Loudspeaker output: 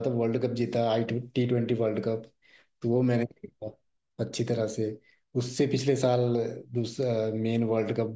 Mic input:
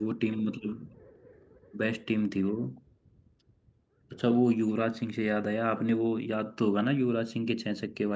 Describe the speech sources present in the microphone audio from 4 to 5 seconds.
user only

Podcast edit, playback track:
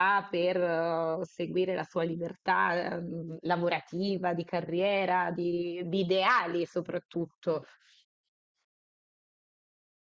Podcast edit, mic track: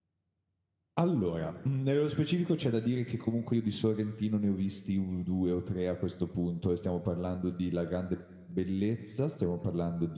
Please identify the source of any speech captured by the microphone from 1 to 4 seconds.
user only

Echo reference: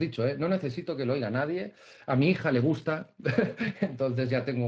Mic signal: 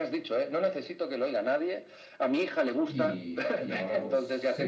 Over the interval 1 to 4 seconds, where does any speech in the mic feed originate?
both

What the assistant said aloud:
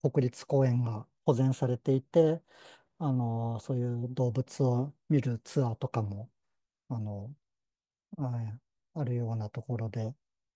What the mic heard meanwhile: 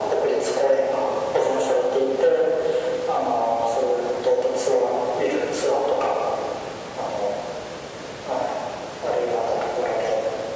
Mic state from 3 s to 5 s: echo only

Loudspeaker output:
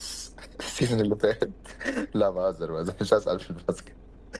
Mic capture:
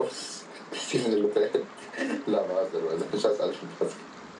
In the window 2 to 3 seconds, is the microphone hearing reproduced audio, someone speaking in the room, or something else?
echo only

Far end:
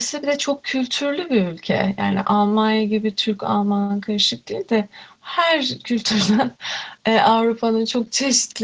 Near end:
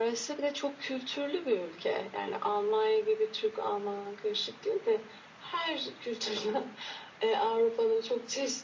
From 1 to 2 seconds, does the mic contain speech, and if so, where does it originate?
echo only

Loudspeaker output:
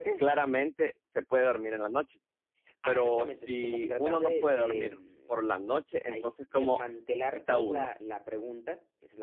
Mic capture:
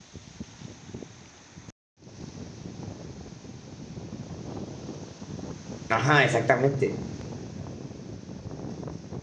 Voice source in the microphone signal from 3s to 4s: neither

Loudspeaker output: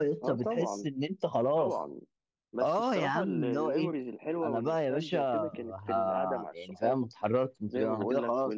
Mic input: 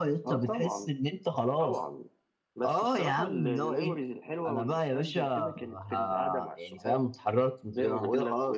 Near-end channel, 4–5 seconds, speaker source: echo only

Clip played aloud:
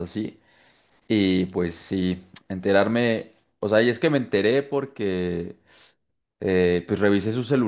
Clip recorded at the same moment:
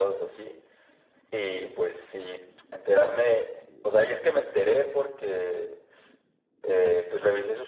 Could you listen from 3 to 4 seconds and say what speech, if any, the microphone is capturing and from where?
echo only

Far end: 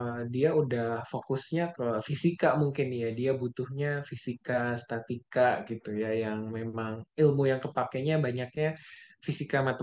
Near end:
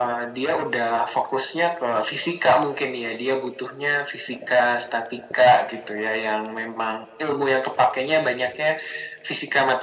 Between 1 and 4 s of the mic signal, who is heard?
echo only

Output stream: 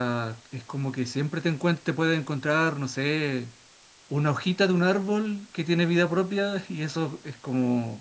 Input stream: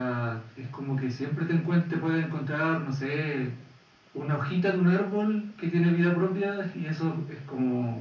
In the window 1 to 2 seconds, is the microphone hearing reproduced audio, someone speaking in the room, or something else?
echo only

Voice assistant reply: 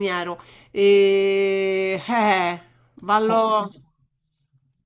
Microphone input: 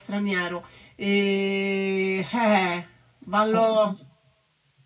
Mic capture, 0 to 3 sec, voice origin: echo only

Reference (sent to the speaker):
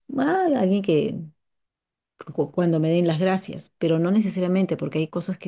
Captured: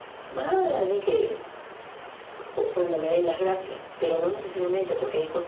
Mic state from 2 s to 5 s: echo only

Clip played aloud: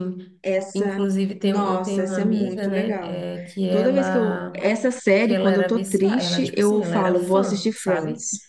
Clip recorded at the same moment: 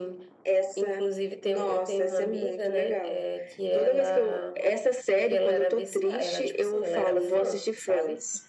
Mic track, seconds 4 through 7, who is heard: echo only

